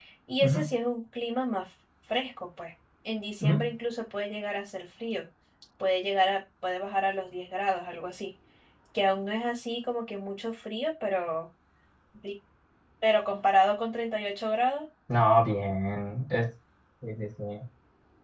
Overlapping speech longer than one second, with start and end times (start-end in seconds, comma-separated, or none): none